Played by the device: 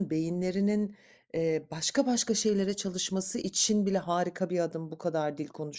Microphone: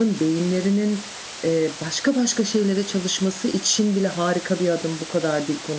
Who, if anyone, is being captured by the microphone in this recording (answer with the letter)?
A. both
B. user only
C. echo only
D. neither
C